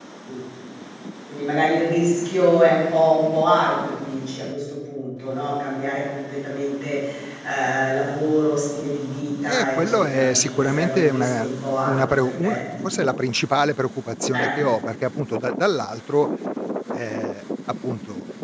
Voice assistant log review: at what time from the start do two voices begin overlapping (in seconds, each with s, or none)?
9.4 s